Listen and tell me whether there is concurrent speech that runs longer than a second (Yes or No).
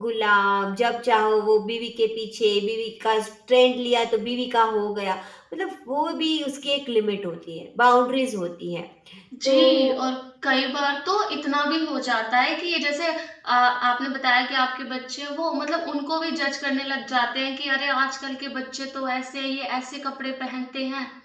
No